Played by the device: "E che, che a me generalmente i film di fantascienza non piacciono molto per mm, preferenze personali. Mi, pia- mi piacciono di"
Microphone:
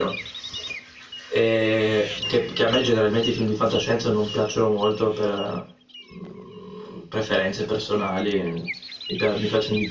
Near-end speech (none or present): none